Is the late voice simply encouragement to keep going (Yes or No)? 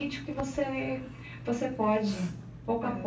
No